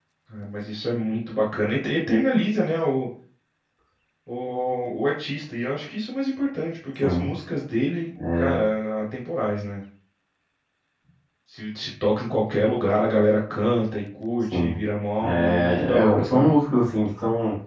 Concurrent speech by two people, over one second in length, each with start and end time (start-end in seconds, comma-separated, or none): 15.2-16.5